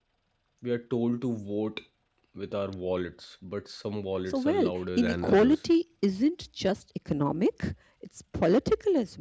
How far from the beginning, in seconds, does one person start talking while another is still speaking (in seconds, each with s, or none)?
4.3 s